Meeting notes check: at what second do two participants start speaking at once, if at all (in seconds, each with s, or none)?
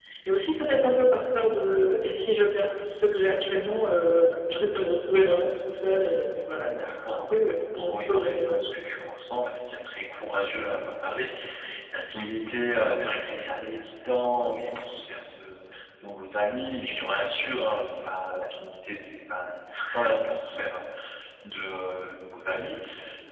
6.6 s